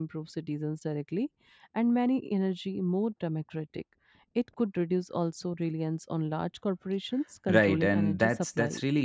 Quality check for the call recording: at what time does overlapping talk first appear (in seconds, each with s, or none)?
7.5 s